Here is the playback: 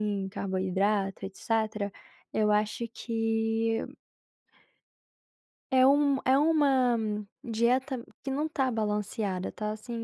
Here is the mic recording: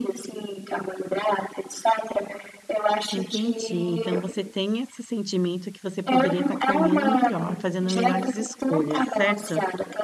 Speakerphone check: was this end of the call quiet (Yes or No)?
No